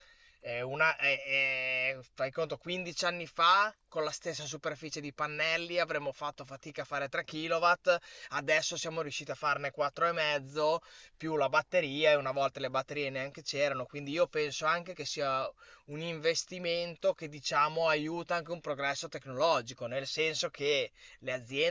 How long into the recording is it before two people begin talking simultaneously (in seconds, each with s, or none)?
none